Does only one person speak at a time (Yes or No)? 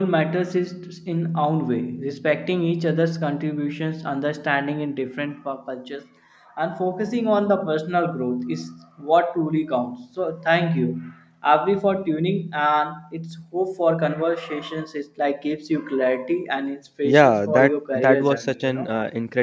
No